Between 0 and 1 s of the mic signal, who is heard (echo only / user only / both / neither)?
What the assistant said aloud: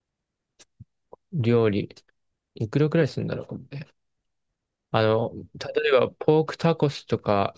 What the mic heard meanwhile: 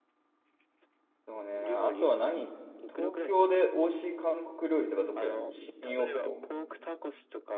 neither